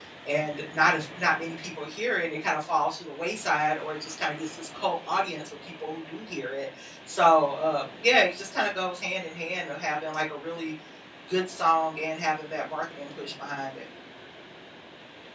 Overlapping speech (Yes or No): No